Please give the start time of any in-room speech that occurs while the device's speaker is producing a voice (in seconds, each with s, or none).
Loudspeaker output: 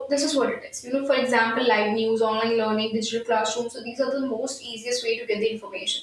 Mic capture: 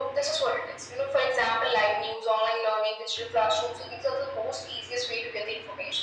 none